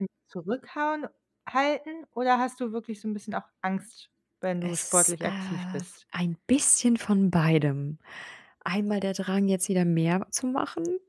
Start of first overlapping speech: 4.6 s

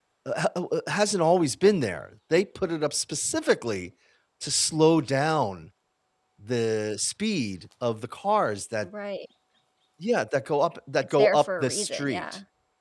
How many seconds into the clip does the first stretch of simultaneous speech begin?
11.0 s

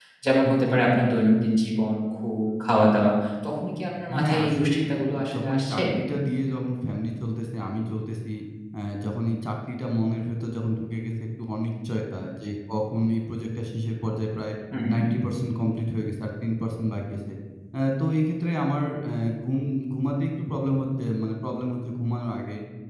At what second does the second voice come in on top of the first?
4.1 s

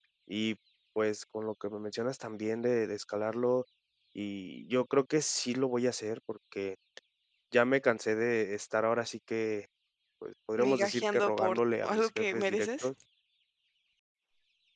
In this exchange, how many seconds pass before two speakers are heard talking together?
10.6 s

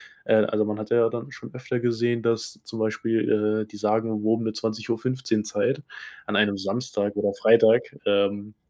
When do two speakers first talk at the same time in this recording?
none

